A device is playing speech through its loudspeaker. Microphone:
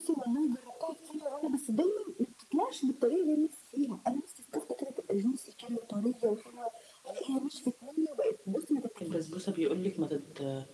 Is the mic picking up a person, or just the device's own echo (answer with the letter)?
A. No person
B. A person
B